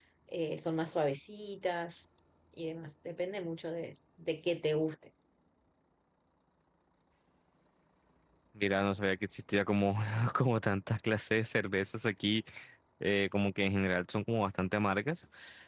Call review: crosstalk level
none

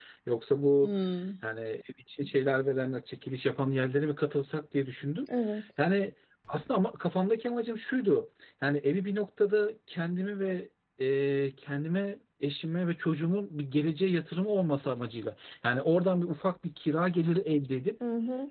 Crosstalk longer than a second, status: none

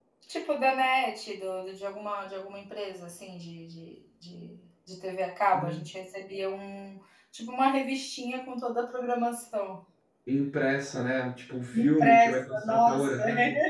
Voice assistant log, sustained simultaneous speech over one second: present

